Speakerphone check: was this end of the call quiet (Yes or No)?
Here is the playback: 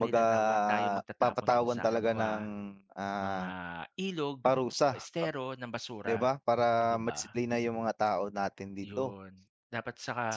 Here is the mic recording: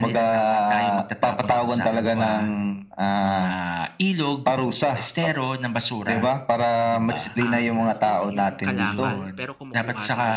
No